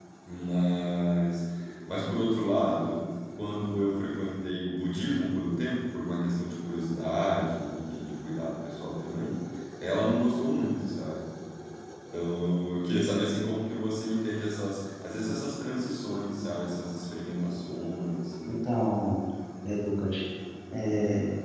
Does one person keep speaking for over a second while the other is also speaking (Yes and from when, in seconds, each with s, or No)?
No